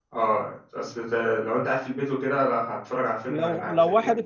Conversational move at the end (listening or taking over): taking over